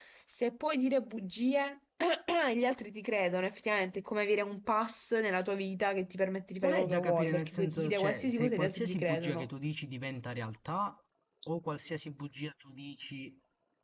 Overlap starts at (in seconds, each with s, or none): 6.6 s